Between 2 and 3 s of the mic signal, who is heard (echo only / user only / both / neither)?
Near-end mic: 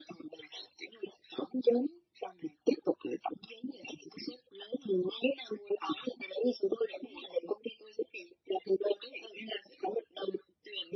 echo only